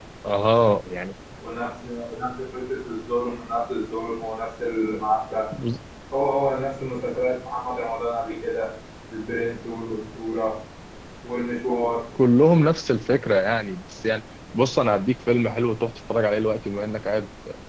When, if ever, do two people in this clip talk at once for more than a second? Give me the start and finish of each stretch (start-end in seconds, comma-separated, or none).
none